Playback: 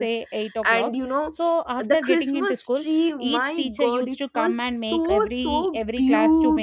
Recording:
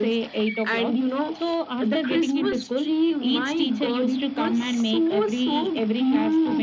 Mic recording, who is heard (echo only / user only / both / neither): echo only